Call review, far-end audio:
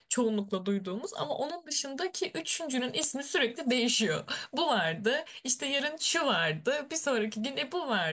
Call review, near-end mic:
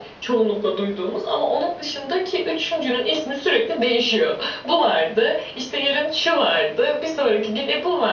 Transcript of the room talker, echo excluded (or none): none